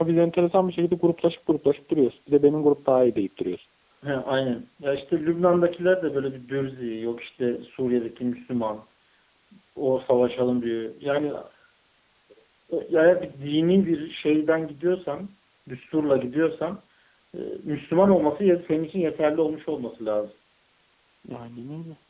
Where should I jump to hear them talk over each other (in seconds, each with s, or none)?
none